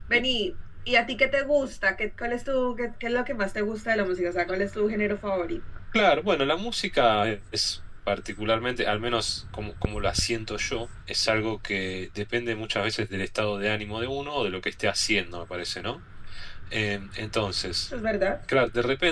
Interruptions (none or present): none